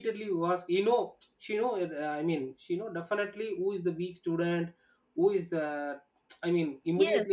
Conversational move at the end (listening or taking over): taking over